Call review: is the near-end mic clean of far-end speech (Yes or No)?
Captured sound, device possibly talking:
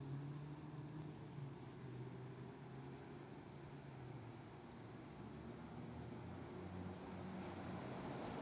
Yes